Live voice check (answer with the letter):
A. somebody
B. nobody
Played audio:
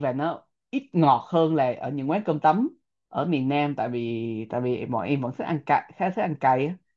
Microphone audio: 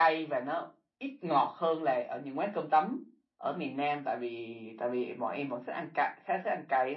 B